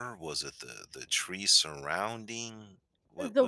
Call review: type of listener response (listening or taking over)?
taking over